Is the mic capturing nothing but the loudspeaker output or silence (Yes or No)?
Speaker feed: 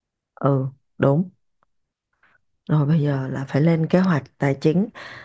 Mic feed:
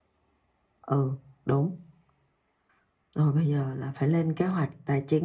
Yes